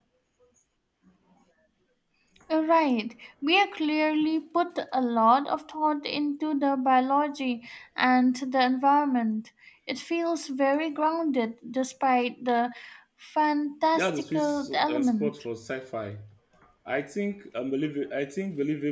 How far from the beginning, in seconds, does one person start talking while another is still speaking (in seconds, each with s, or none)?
14.0 s